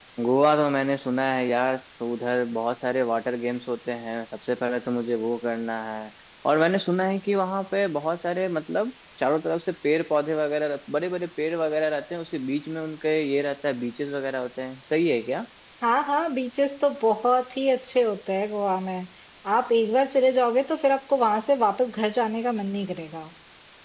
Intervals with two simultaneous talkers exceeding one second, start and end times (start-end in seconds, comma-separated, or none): none